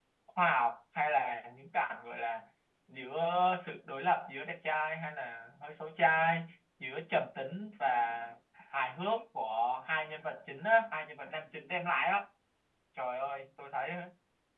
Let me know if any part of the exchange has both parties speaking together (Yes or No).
No